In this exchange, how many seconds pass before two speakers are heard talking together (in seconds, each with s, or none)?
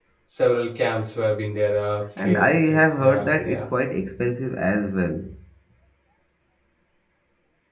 2.2 s